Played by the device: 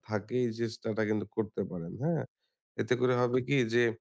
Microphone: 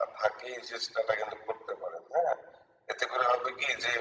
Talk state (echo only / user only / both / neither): echo only